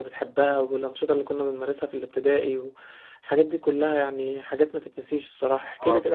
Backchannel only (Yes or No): No